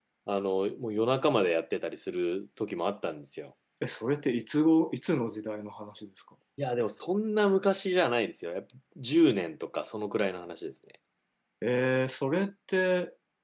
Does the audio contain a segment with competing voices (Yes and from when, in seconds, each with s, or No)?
No